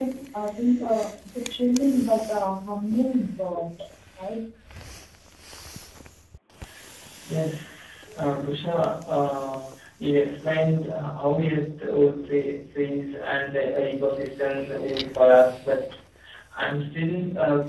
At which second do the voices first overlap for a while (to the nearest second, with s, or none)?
none